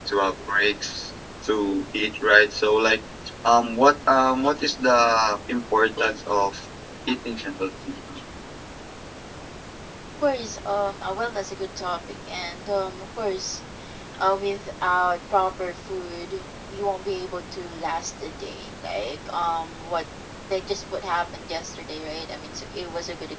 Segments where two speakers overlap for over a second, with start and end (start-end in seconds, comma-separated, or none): none